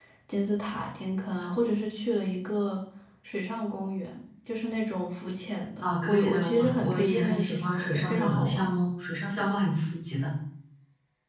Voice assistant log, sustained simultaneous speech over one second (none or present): present